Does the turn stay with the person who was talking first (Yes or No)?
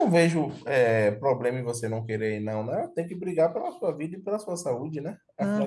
No